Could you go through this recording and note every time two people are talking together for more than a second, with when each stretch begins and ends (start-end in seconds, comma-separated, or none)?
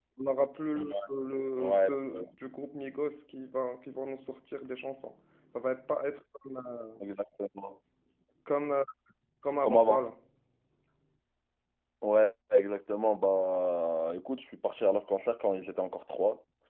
none